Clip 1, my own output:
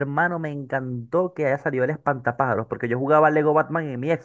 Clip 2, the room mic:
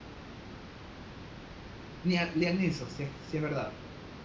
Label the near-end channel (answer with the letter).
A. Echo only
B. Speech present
B